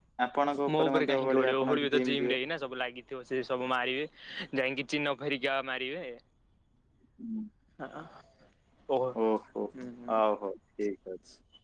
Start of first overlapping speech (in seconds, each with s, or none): 0.8 s